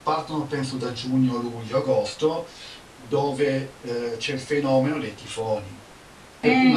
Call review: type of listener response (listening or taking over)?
listening